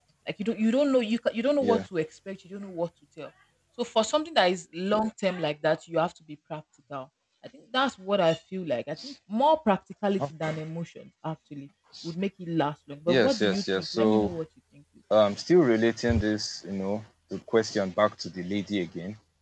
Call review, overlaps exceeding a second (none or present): present